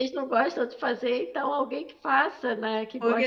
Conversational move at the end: taking over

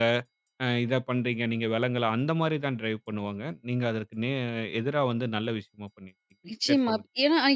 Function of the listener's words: taking over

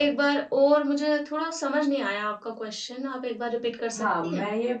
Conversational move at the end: taking over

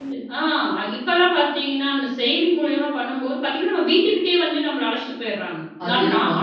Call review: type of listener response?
listening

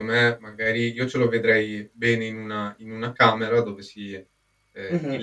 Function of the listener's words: listening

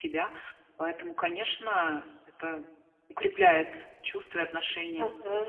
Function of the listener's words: taking over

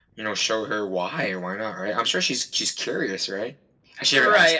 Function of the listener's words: taking over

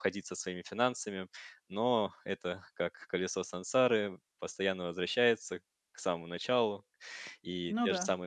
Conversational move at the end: listening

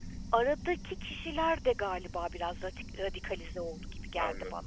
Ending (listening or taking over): taking over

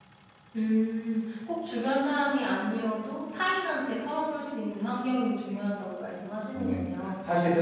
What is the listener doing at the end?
taking over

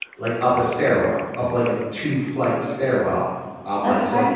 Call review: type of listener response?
listening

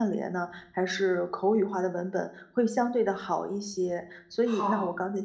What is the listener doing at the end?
listening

